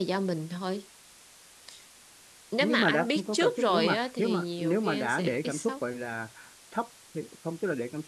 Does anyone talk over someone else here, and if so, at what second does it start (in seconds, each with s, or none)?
2.6 s